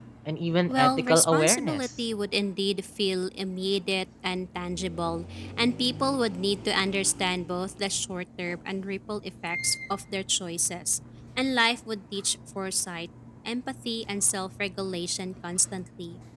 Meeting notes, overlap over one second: present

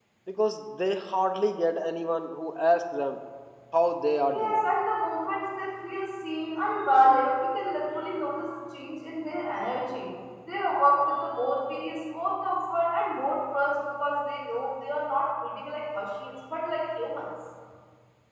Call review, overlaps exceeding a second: none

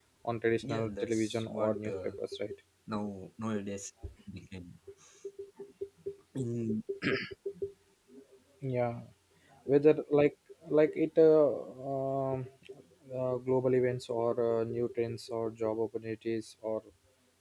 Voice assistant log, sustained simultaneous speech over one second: present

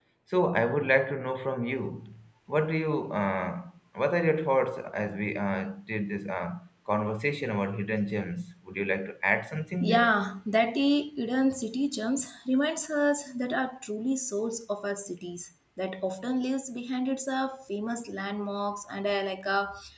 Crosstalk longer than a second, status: none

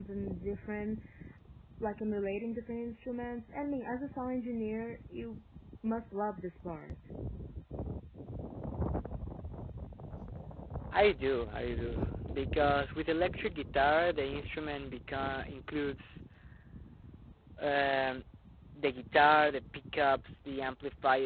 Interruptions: none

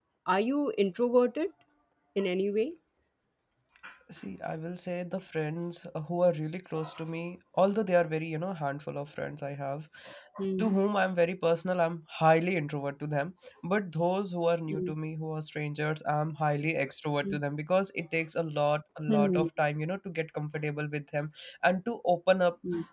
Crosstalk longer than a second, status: none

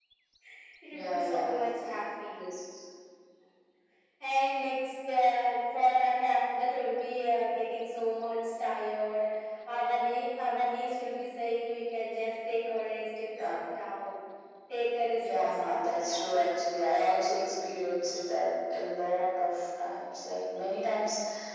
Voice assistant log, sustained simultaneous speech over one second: present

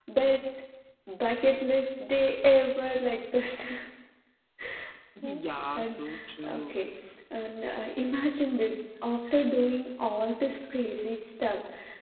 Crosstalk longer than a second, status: none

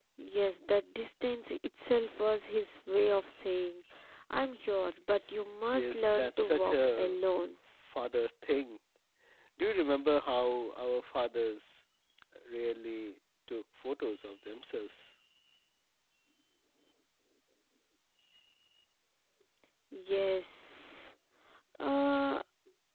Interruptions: present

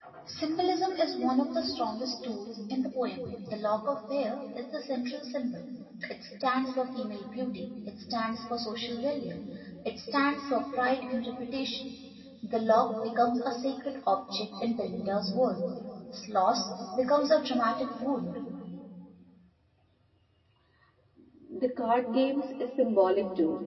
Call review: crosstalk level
none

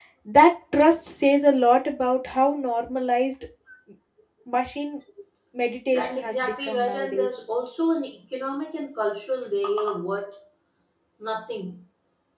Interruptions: present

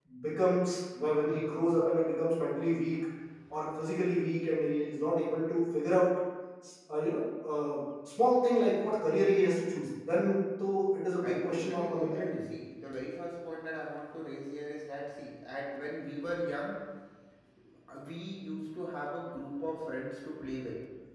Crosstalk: present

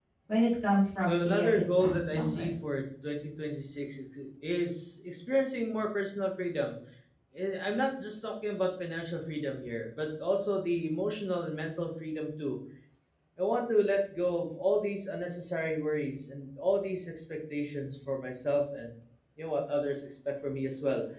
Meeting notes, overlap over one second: present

